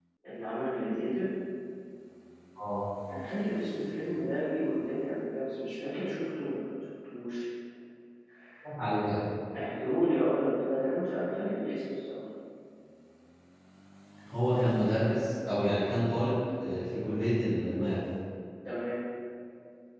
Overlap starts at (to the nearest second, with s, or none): none